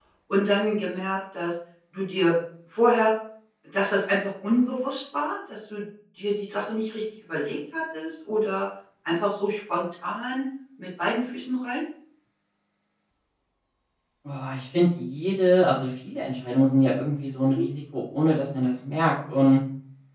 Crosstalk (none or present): none